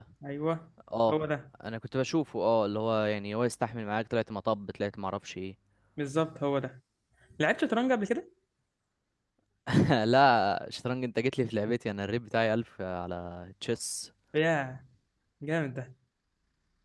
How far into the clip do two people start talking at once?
none

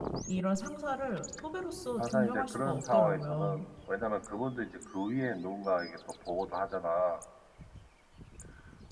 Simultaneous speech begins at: 2.0 s

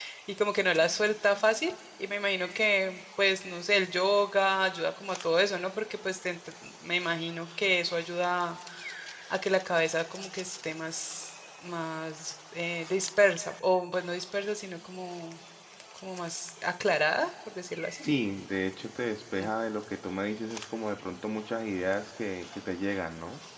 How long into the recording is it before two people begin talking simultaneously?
none

